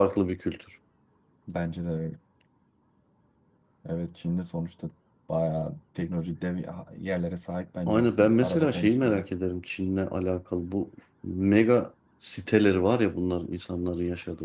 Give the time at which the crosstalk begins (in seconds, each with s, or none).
7.9 s